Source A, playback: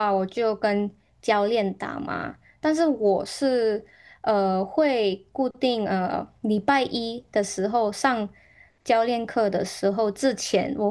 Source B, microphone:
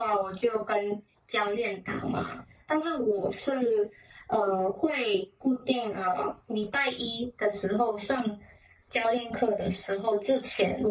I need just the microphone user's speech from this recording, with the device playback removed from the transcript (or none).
none